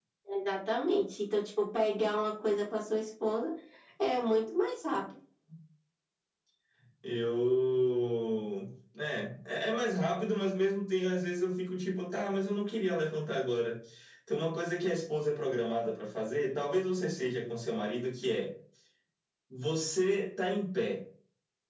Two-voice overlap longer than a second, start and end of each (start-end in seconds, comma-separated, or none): none